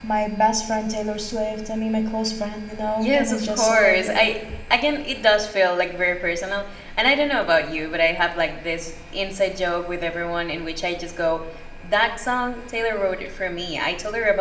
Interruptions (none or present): present